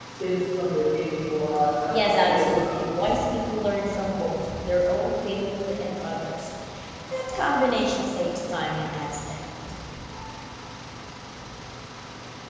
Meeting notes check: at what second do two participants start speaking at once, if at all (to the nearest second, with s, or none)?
2 s